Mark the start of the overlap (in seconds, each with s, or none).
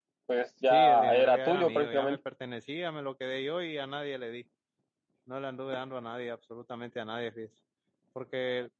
0.7 s